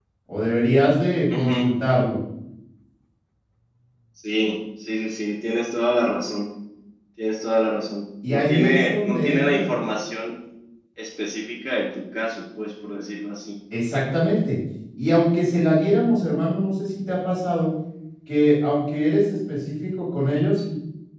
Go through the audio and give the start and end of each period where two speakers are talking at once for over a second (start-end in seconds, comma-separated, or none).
8.3-9.7